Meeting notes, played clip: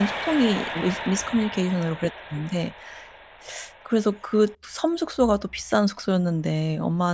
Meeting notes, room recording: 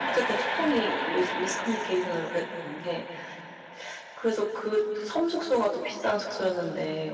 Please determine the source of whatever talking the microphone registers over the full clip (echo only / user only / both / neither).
echo only